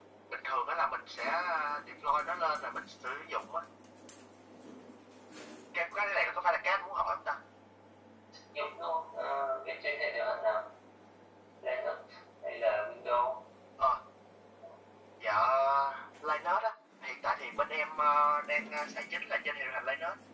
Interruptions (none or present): none